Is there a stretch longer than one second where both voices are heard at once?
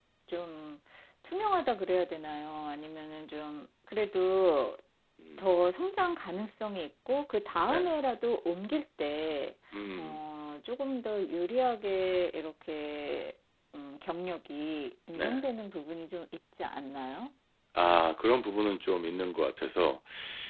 No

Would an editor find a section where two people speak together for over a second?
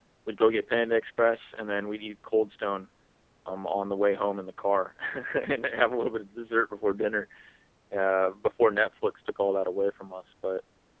No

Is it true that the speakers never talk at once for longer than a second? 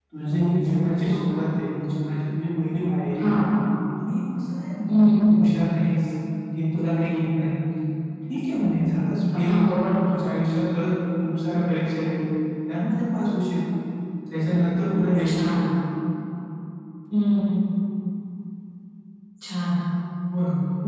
Yes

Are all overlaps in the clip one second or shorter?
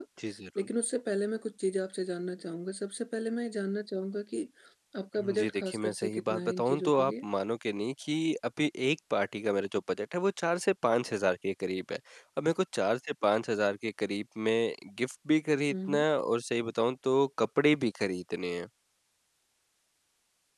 No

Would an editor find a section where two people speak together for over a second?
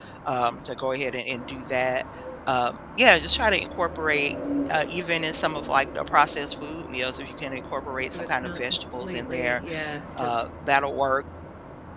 Yes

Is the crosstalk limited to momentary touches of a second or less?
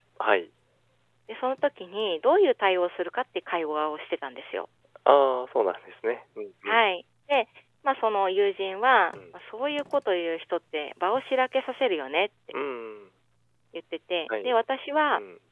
Yes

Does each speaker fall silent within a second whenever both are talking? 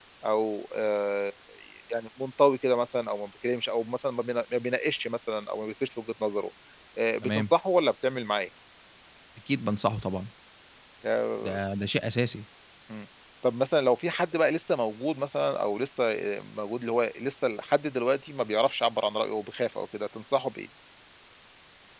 Yes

